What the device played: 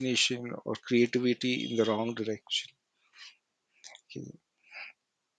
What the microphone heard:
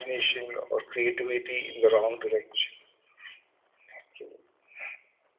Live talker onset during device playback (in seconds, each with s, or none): none